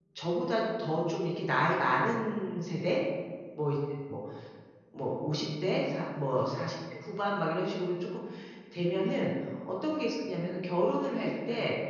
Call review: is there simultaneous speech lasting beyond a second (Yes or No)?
No